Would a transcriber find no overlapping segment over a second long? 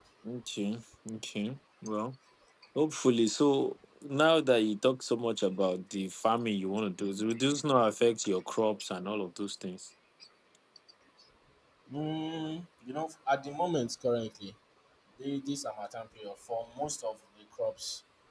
Yes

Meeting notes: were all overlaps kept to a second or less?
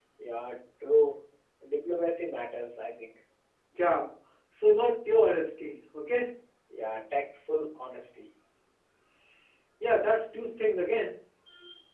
Yes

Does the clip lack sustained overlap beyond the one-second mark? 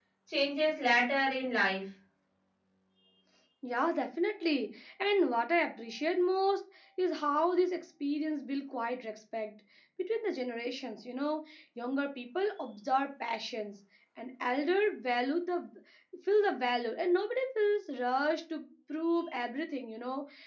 Yes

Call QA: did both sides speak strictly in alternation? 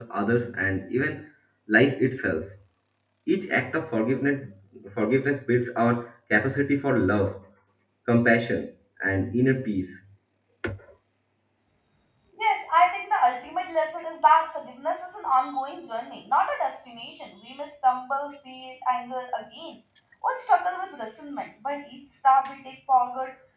Yes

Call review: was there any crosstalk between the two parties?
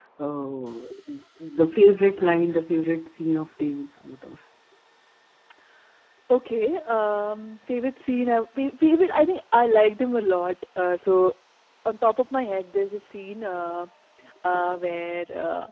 No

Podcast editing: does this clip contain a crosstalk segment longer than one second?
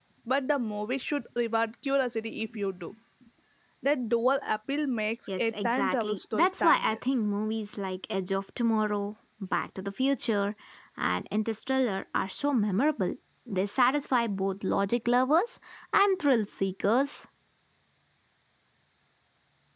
Yes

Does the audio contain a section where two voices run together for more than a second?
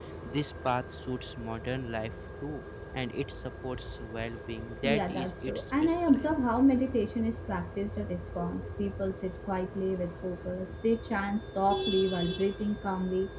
Yes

